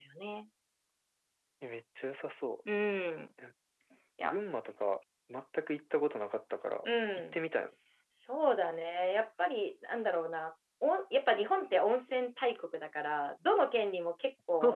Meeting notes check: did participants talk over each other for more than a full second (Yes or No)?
No